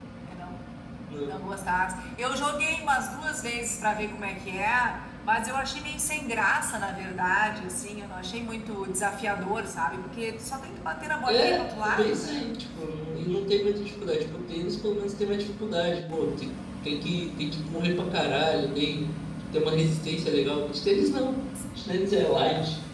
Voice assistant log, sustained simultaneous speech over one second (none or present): present